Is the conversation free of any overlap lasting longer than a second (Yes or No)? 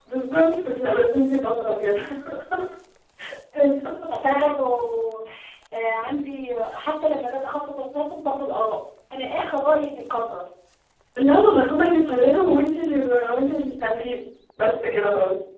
Yes